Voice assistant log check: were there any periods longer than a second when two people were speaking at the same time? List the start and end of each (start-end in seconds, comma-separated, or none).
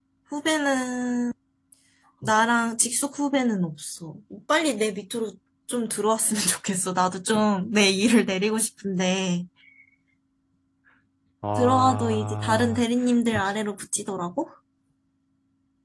11.6-12.8